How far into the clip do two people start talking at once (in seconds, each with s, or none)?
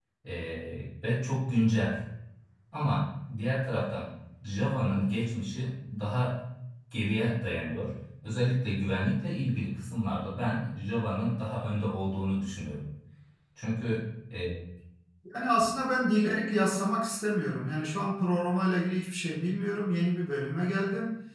none